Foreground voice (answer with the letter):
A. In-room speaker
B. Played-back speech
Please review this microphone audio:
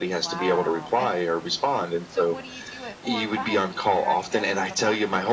B